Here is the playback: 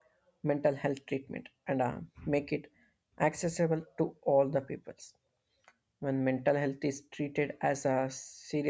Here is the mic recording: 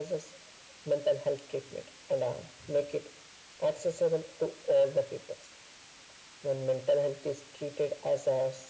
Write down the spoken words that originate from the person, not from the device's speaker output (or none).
none